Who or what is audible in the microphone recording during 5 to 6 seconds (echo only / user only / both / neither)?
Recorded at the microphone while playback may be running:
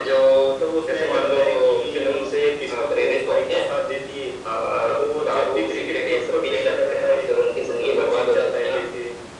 echo only